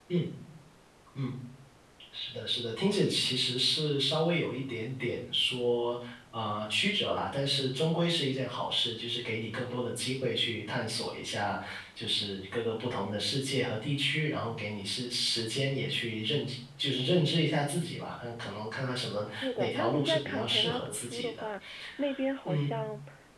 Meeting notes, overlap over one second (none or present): present